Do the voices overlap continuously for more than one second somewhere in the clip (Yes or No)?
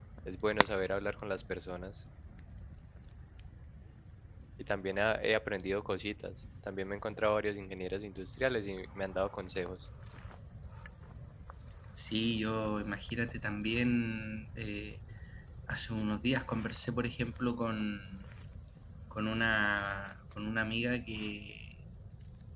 No